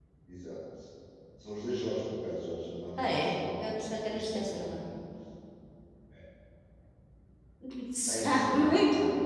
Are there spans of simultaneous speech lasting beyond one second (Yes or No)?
Yes